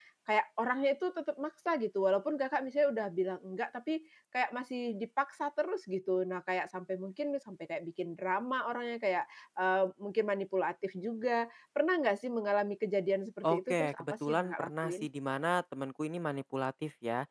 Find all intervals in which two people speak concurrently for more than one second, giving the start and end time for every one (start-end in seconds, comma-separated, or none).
13.4-15.1